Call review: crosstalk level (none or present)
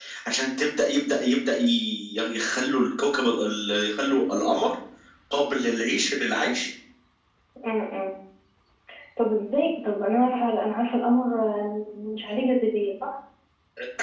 none